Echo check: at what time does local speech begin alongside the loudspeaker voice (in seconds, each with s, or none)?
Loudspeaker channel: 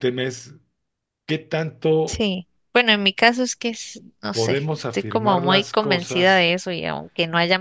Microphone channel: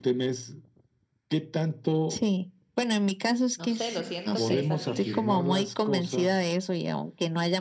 3.5 s